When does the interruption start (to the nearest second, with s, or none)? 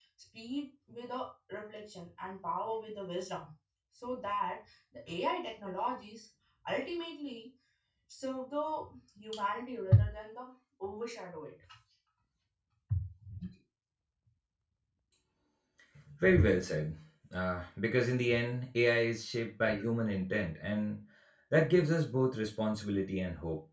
none